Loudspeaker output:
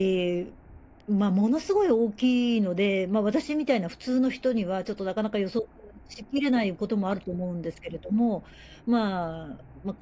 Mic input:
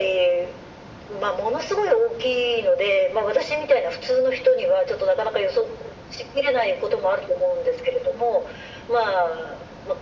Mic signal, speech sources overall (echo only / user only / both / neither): echo only